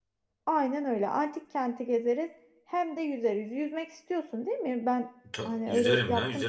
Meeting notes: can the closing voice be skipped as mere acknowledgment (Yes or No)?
No